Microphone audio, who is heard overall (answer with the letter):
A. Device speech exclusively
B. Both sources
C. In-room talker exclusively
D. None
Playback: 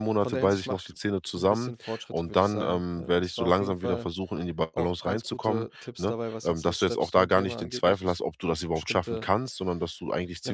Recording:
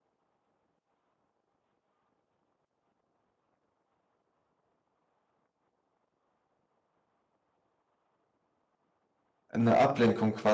C